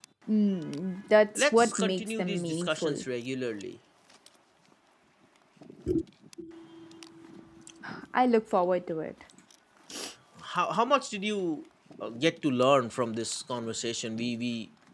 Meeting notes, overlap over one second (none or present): present